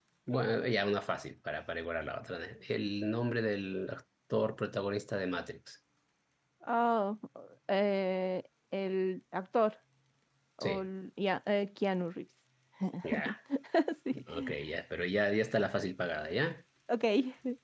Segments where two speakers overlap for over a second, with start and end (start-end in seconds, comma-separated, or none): none